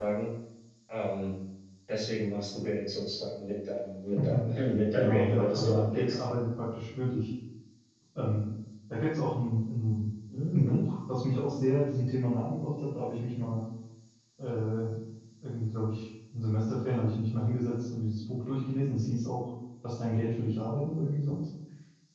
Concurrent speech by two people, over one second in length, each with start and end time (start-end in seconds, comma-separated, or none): 5.0-6.2